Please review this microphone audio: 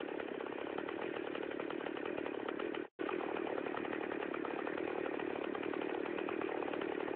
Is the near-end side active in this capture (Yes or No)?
No